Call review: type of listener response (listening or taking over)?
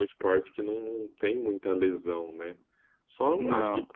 listening